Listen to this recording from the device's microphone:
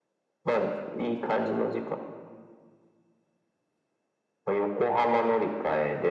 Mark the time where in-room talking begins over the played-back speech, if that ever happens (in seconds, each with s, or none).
none